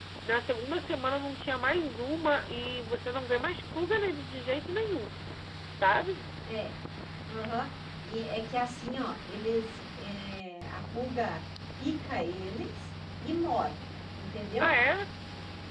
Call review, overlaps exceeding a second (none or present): none